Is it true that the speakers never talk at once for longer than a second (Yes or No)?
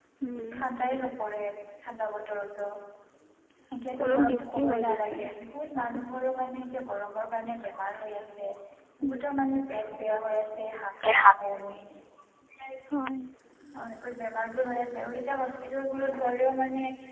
No